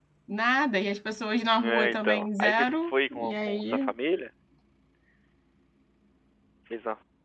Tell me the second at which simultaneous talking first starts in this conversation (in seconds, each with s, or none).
1.6 s